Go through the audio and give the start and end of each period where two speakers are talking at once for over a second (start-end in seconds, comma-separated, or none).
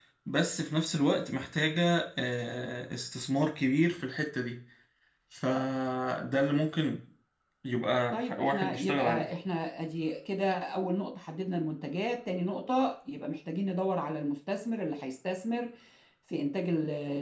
8.1-9.3